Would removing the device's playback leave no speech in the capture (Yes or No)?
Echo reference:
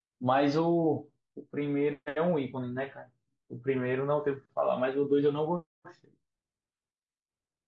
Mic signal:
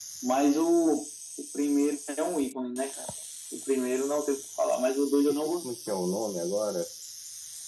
No